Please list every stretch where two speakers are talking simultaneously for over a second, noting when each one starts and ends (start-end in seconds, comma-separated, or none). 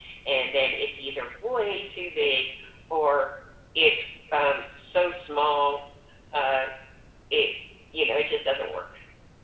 none